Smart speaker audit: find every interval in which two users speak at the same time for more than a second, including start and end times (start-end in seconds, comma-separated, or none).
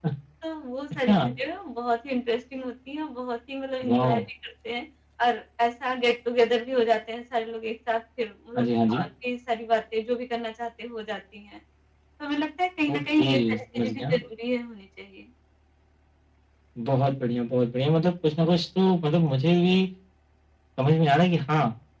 12.9-14.2